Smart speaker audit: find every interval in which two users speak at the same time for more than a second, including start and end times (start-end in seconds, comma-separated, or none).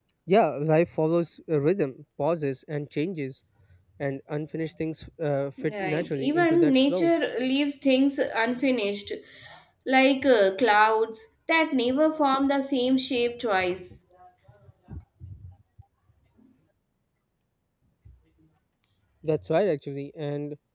5.6-7.1